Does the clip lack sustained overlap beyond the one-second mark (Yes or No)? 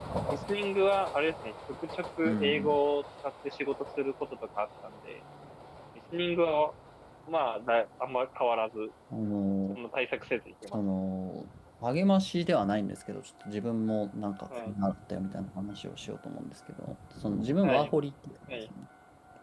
Yes